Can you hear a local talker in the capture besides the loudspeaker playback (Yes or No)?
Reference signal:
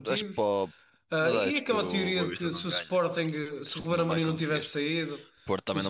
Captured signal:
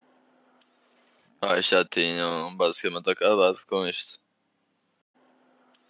Yes